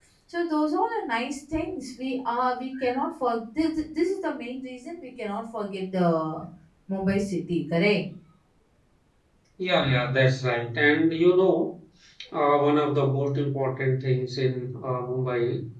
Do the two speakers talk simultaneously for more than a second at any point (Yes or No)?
No